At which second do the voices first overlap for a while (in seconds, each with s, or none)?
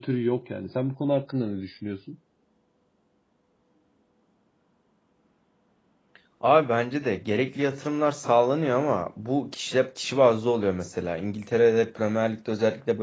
none